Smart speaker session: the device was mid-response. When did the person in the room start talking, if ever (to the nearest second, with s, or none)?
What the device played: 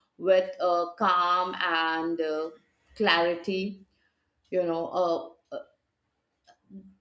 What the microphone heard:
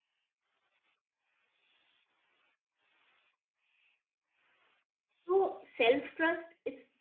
5 s